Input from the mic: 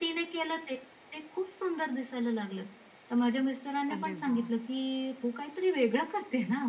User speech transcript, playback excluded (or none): अरे वाह!